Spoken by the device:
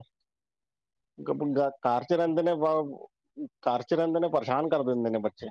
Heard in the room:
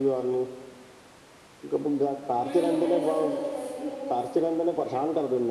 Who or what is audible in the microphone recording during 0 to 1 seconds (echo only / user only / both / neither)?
echo only